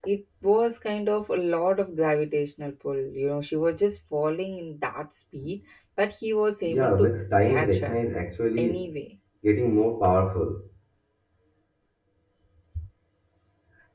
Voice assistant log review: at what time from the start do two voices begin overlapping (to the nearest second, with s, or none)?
7 s